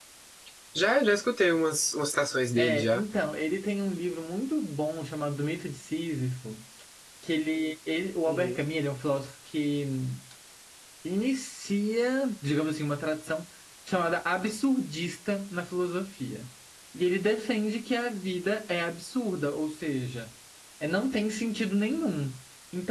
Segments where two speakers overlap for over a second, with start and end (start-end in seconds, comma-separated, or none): none